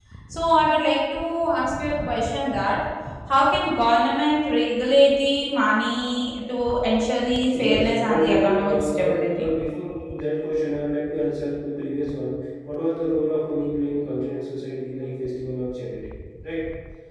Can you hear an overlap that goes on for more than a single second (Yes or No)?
Yes